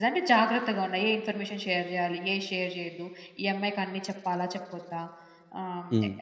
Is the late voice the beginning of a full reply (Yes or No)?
No